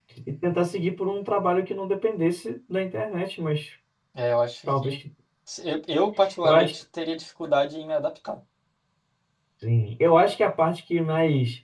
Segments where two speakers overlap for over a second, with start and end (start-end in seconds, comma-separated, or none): none